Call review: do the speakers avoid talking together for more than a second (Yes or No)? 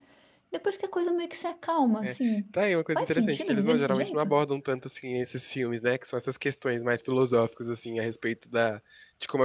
No